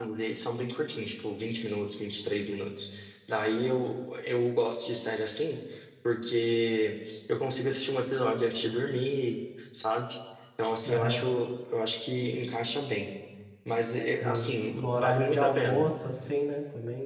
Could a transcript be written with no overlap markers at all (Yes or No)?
No